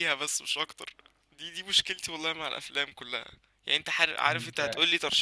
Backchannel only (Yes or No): Yes